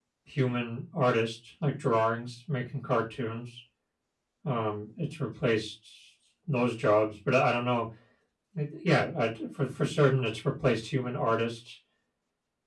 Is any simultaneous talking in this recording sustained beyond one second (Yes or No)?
No